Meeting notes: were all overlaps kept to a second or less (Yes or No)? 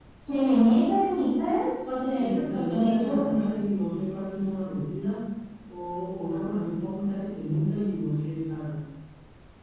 No